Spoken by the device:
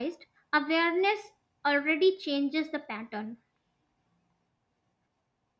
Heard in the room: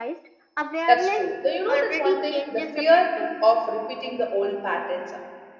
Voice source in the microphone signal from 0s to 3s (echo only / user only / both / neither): both